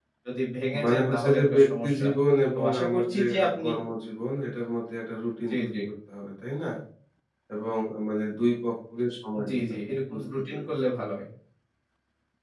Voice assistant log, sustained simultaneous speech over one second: present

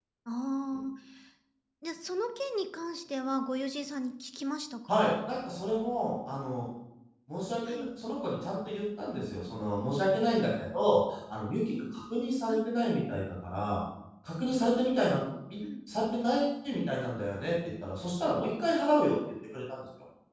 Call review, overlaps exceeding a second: none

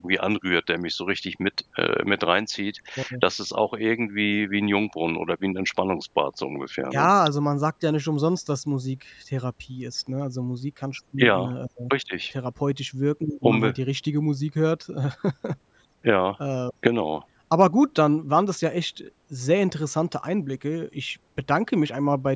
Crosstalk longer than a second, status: none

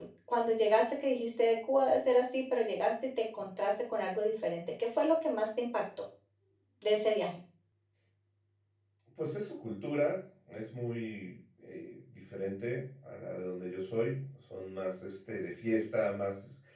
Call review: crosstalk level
none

